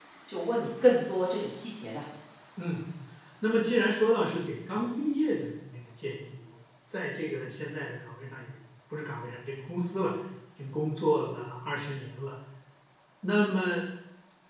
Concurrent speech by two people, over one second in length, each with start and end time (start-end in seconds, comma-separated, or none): none